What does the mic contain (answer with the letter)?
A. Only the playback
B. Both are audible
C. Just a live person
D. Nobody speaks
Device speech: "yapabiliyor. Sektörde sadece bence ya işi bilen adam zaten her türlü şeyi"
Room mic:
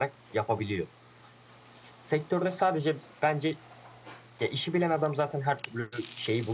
A